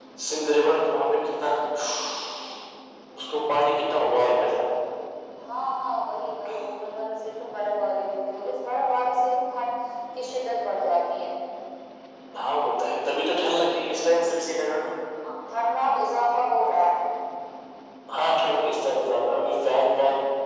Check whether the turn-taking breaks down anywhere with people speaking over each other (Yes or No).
No